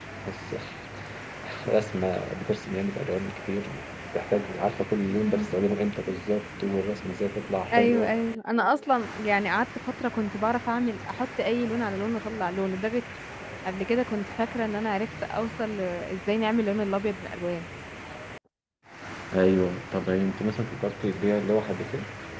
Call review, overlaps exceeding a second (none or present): none